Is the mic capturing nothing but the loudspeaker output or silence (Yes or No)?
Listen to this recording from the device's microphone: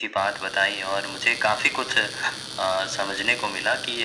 Yes